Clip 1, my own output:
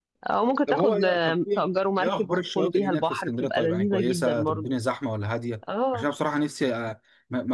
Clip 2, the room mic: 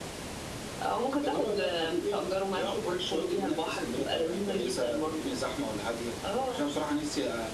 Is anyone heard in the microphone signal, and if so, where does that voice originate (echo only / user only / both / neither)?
echo only